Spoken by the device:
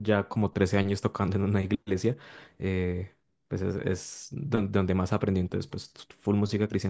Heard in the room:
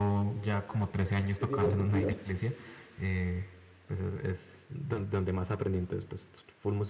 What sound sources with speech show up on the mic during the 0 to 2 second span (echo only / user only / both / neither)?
both